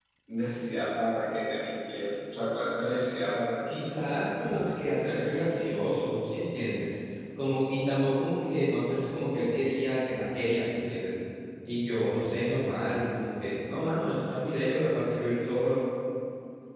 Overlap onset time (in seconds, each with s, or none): 3.7 s